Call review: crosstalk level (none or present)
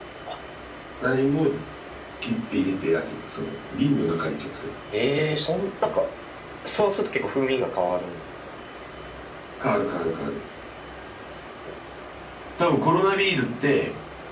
none